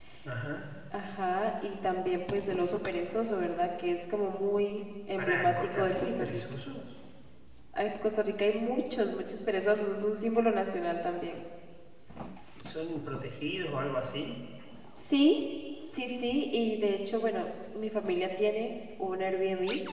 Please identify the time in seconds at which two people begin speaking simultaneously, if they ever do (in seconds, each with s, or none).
5.2 s